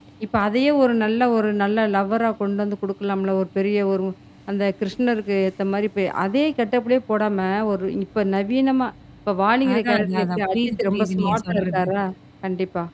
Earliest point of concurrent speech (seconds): 9.6 s

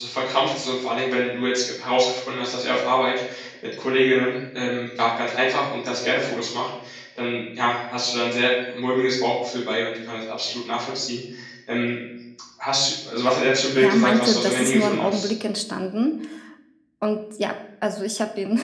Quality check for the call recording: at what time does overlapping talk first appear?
13.8 s

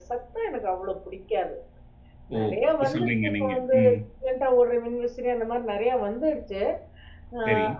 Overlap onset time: 2.4 s

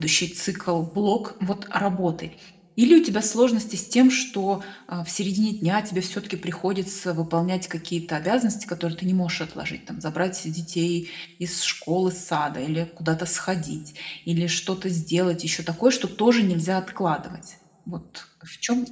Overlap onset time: none

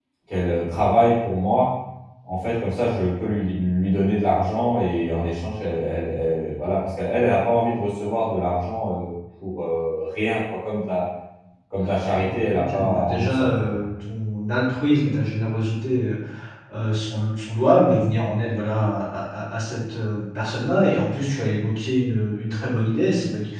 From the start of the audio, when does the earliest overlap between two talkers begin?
11.8 s

